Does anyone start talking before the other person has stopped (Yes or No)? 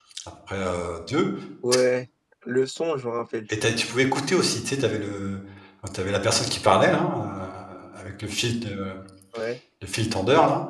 No